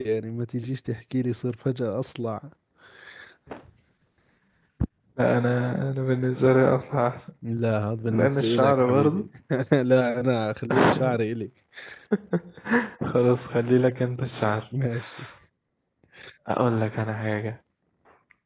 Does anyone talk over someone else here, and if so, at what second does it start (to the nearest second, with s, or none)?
8 s